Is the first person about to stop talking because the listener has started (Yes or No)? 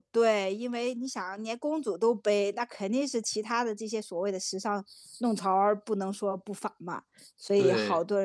No